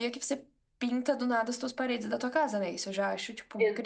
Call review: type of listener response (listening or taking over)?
taking over